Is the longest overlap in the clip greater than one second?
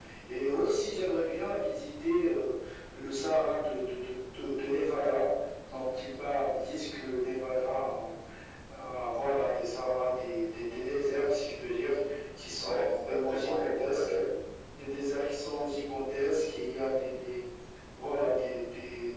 Yes, from 12.6 s

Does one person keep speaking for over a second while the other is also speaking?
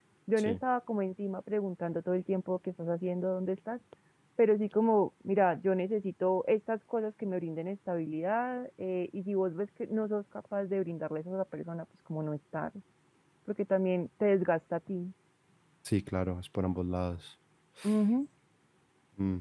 No

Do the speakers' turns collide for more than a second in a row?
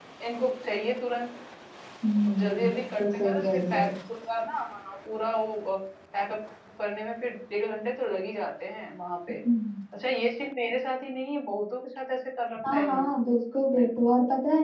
Yes, from 2.3 s

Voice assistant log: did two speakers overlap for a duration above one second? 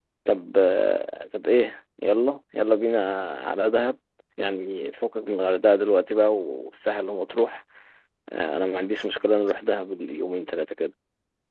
No

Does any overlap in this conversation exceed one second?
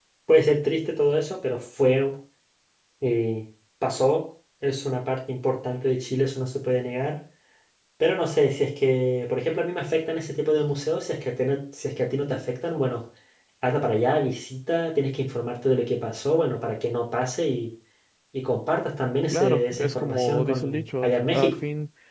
Yes, from 19.3 s

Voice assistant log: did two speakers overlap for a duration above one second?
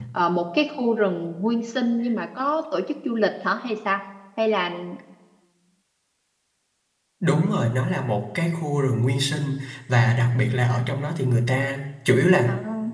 No

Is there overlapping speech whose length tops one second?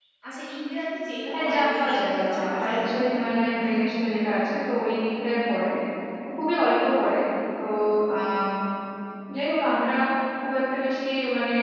Yes, from 1.3 s

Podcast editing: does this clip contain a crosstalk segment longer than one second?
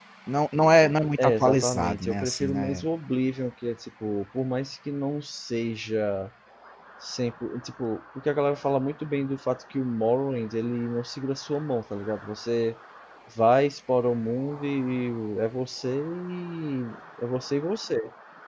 Yes, from 1.2 s

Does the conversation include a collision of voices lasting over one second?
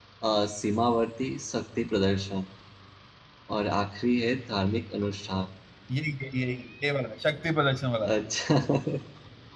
No

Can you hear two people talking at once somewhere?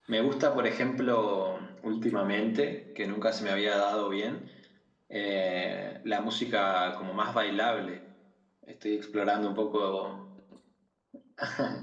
No

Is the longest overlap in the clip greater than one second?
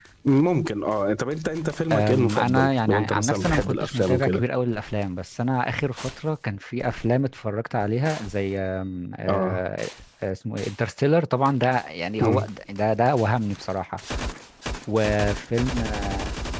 Yes, from 1.9 s

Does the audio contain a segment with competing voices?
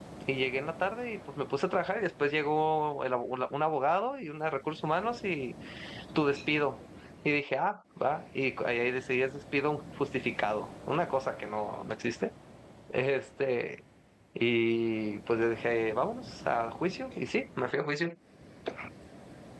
No

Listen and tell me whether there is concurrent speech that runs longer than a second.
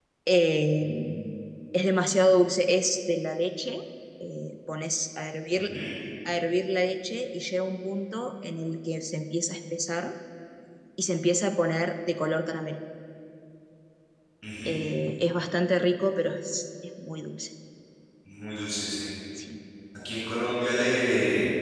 No

